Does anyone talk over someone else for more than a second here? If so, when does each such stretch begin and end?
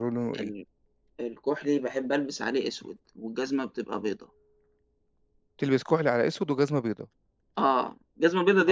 none

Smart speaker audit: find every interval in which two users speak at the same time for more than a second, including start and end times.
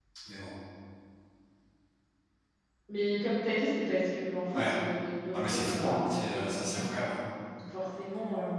5.3-6.9

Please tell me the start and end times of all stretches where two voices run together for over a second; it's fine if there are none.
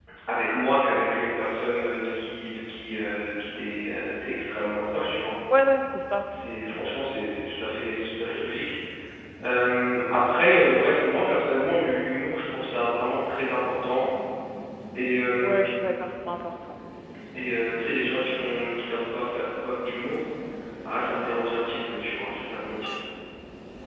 none

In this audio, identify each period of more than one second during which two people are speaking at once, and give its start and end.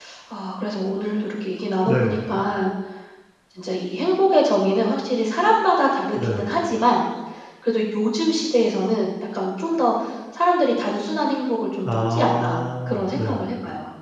11.8-13.4

